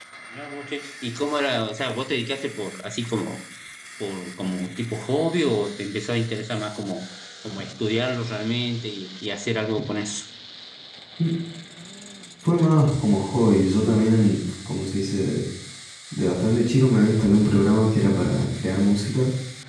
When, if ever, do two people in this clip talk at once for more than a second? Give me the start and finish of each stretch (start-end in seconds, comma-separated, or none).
none